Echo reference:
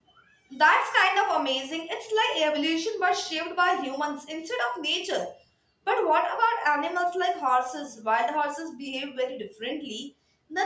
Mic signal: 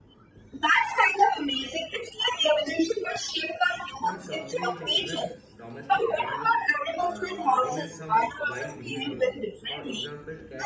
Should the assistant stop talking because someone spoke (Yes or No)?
Yes